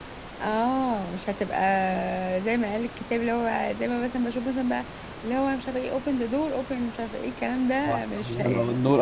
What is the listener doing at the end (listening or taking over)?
taking over